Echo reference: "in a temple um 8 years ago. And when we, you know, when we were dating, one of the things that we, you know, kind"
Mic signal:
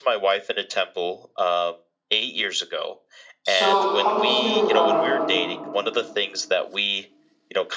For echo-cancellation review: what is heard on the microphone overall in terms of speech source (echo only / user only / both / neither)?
both